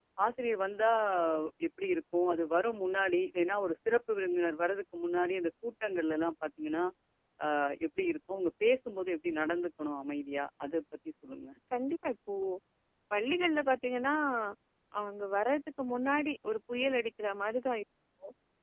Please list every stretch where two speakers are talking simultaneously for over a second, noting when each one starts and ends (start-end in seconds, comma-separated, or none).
none